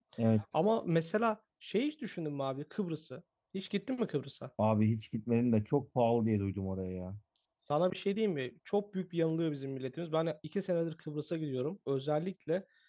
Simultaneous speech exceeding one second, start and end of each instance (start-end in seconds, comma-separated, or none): none